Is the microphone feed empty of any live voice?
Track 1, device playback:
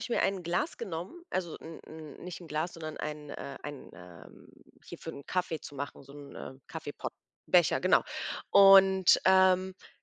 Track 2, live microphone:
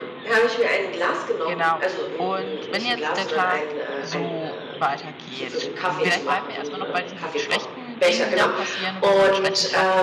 No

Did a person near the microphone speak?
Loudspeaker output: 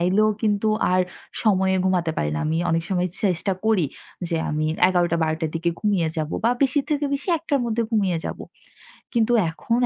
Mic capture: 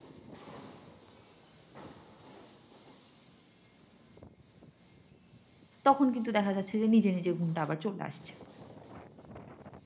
Yes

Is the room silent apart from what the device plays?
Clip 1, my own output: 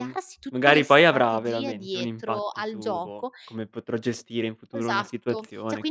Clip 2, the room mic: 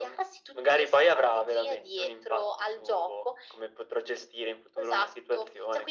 Yes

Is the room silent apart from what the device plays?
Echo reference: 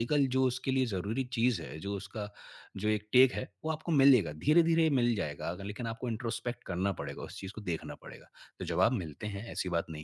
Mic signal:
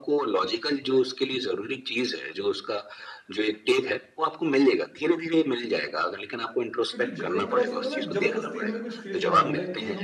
No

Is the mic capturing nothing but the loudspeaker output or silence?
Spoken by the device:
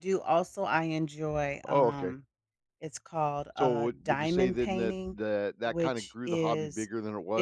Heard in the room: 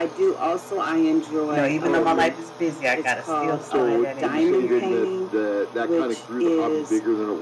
No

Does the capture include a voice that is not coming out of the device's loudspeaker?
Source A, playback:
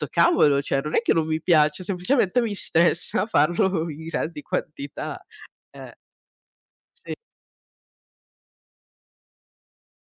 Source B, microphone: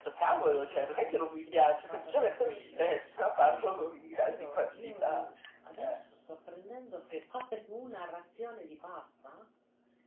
Yes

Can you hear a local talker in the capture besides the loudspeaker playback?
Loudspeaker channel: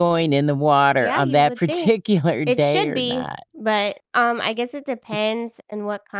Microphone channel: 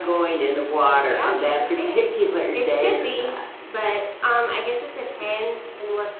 No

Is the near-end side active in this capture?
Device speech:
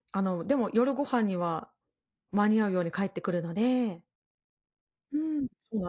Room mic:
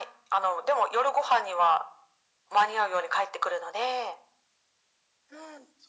No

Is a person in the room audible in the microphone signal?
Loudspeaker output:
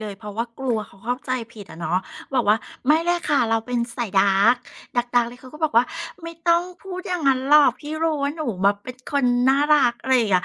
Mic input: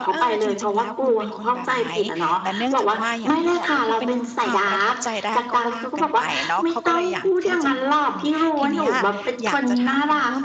Yes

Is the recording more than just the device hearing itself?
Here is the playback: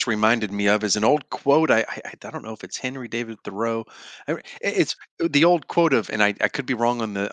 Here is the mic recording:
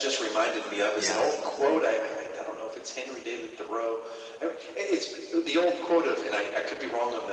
Yes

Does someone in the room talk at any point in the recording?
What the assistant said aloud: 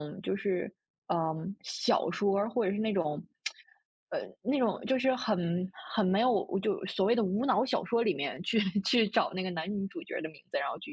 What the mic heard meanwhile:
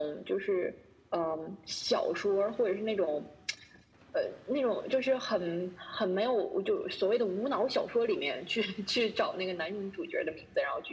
No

